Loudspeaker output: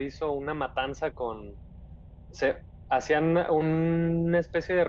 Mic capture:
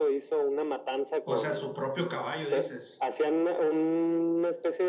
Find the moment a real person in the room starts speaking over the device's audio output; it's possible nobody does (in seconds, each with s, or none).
1.2 s